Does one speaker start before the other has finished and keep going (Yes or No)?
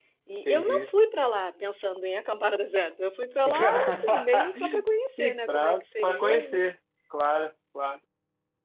Yes